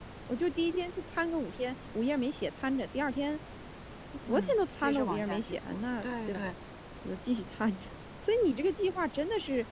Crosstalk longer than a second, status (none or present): present